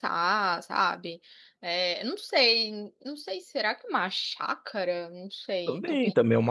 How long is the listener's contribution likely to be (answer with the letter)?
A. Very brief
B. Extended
B